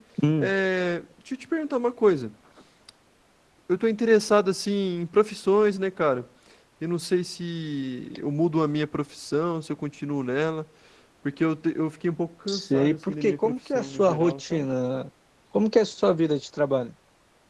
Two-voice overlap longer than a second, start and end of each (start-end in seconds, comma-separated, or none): 12.5-14.6